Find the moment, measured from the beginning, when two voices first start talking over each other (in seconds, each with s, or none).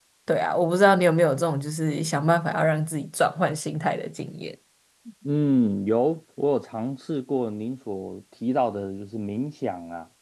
none